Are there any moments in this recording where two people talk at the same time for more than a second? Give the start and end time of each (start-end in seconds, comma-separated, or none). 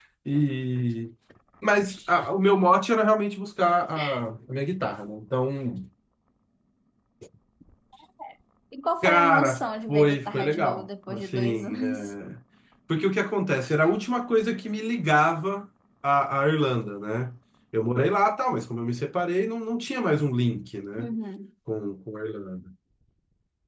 9.0-12.1